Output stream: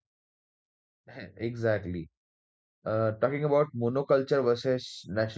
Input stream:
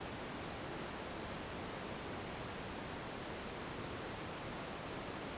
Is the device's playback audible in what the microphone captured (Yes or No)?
No